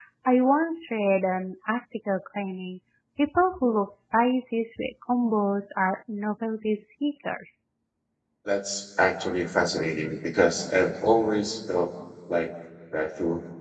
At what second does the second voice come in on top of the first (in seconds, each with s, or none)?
none